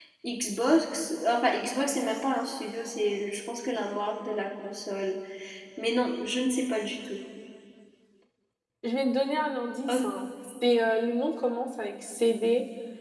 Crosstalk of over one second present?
No

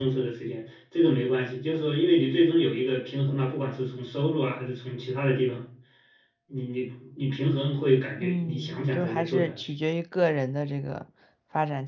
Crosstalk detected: Yes, from 8.2 s

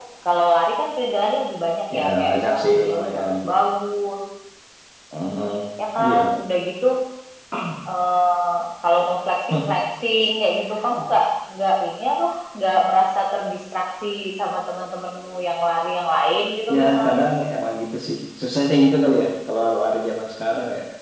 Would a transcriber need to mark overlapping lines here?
Yes, from 1.9 s

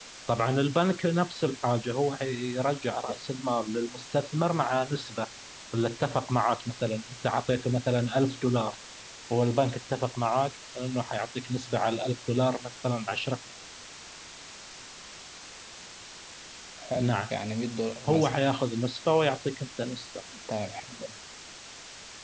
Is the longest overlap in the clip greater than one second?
No

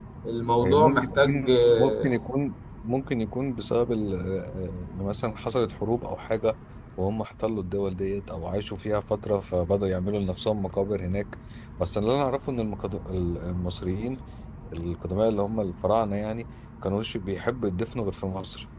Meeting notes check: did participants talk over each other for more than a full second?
Yes, from 0.6 s

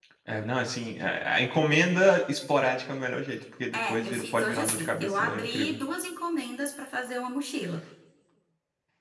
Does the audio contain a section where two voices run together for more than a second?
Yes, from 3.7 s

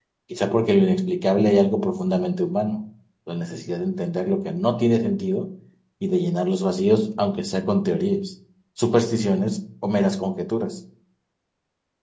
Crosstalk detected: No

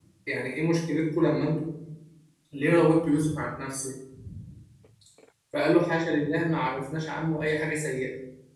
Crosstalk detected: No

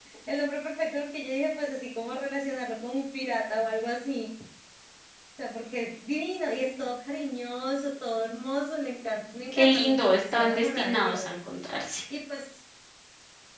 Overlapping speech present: Yes, from 9.5 s

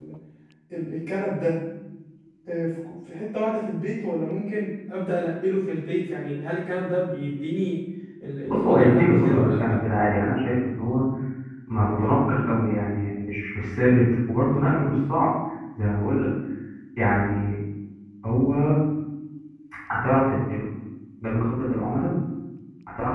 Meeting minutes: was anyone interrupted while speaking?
Yes, from 8.5 s

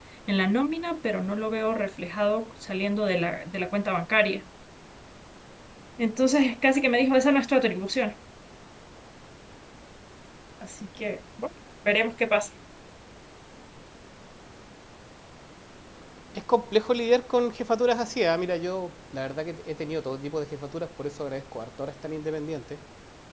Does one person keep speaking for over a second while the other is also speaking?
No

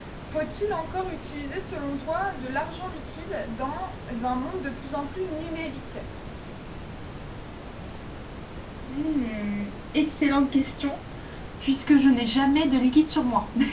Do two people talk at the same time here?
No

